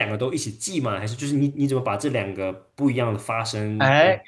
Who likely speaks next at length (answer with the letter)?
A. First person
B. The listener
B